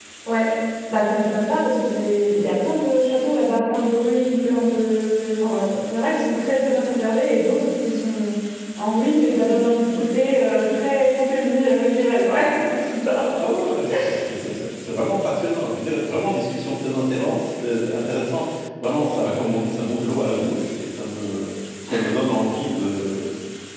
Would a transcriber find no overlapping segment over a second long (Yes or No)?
Yes